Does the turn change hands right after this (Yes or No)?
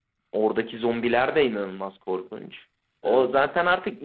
No